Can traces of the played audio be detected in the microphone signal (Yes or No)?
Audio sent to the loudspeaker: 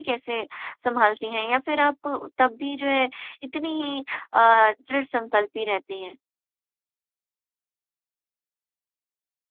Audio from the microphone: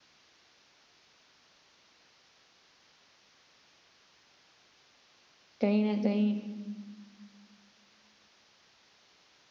No